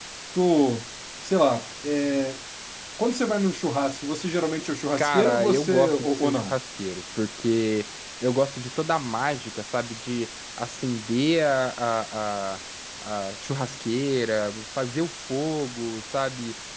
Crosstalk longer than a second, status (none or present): present